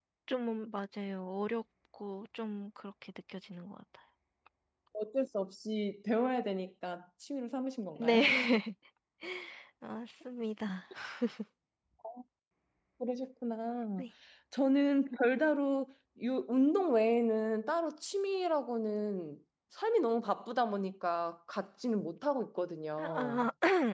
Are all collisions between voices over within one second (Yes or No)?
Yes